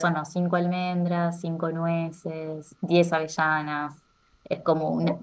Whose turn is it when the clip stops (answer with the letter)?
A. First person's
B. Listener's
A